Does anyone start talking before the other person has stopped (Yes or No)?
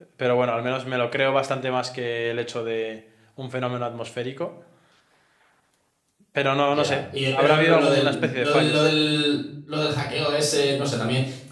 Yes